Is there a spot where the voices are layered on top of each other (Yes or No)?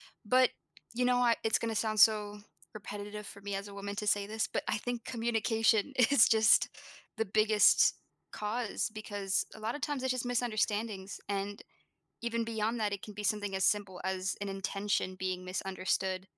No